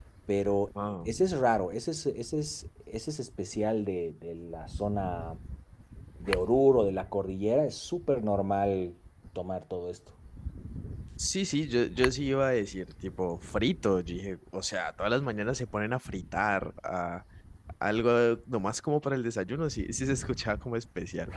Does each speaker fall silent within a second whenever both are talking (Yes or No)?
Yes